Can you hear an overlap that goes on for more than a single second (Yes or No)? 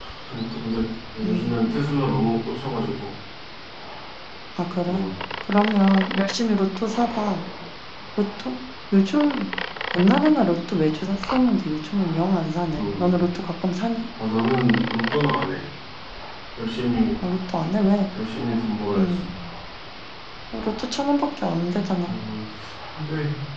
No